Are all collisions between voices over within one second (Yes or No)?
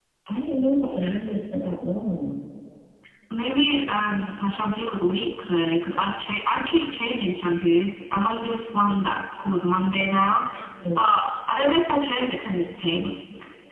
Yes